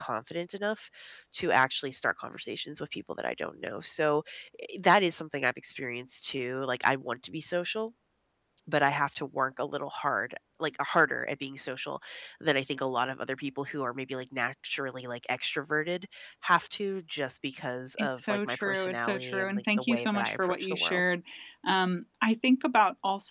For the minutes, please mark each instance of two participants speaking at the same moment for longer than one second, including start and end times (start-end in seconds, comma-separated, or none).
18.0-21.0